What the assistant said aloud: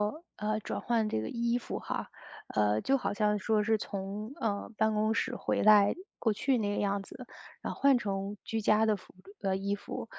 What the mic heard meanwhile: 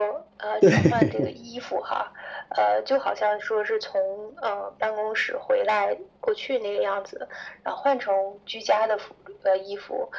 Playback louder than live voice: No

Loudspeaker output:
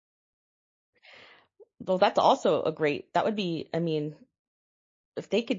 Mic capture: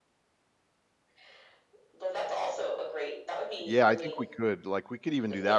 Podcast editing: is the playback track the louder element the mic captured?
No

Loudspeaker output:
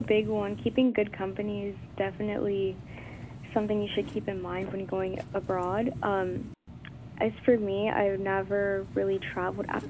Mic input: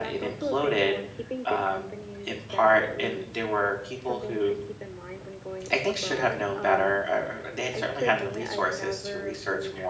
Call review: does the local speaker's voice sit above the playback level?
Yes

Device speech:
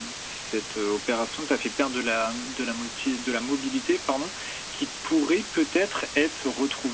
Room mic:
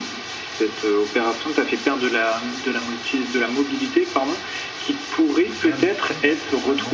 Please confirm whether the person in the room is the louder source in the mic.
No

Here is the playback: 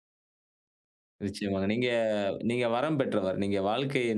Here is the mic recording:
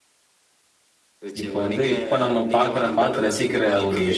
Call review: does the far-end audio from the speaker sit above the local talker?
No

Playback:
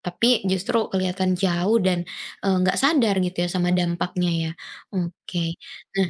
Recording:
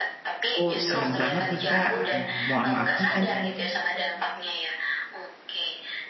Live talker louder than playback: Yes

